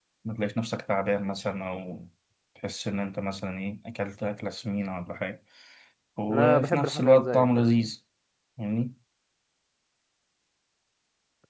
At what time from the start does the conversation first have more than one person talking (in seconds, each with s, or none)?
6.3 s